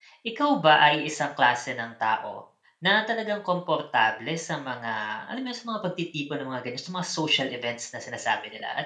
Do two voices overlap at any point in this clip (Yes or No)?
No